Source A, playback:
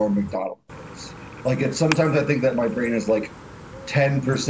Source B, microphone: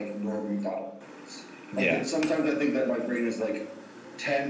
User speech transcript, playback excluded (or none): Yeah,